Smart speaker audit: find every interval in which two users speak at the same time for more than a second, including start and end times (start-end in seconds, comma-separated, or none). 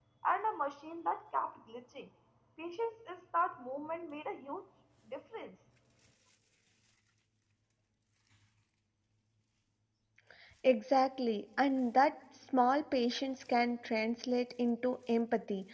none